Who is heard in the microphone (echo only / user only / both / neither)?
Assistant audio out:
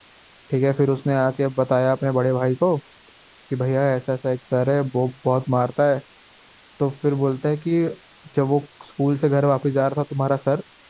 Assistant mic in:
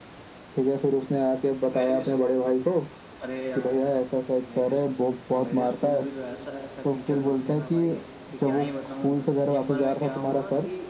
both